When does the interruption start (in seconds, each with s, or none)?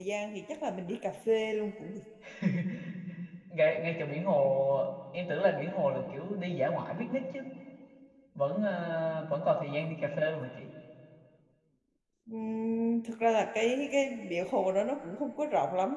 none